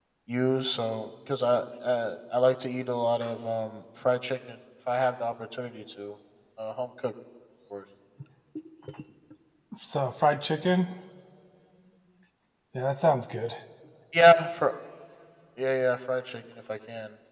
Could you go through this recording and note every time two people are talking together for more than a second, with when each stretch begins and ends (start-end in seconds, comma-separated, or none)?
none